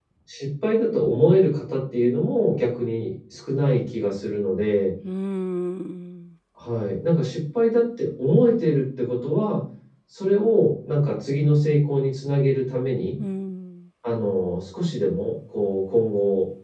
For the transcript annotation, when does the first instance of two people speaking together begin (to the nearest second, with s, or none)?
none